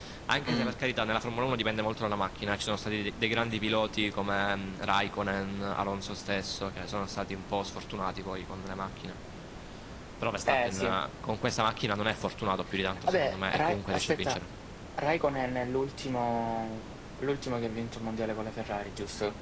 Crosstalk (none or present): present